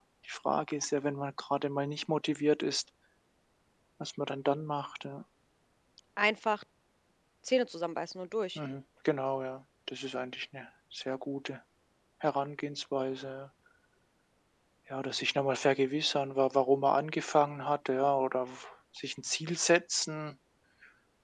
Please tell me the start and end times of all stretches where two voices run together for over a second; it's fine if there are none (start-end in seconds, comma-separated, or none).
none